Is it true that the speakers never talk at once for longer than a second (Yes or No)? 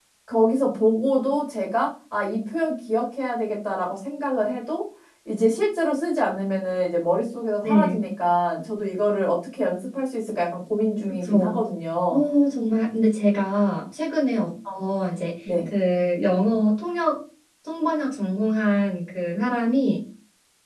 Yes